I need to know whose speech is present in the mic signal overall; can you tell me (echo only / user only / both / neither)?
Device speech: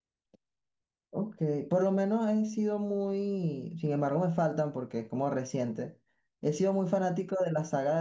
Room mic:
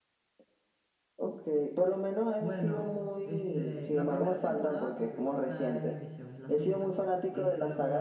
both